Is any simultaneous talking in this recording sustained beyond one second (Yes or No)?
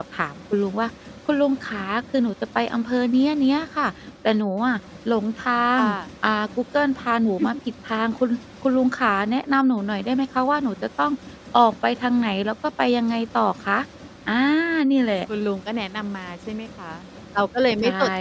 No